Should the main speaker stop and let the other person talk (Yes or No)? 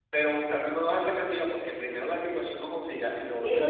Yes